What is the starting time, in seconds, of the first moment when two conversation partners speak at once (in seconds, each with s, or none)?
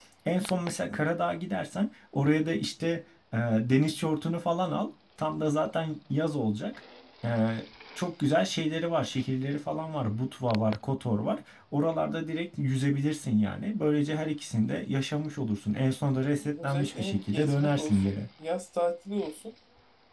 16.6 s